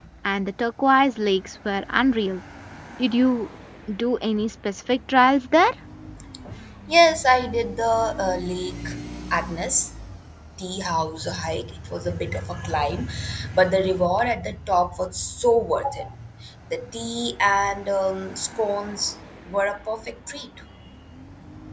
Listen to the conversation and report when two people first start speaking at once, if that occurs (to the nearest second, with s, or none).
none